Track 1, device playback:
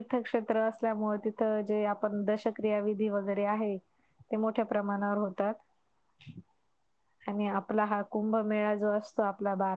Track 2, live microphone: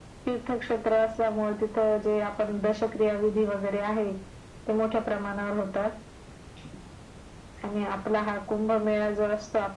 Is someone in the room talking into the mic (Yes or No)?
No